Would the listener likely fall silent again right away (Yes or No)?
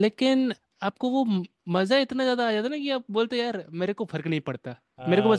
No